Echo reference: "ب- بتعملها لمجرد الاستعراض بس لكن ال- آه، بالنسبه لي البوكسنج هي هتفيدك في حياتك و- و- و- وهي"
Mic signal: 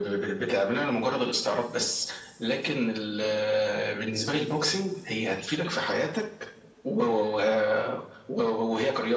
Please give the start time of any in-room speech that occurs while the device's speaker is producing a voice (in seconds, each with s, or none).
none